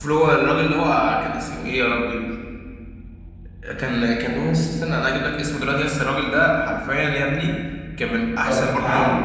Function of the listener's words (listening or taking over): taking over